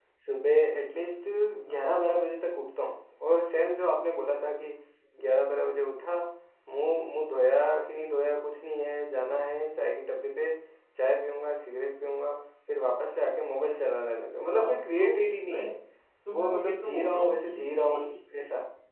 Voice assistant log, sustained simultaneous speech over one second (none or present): present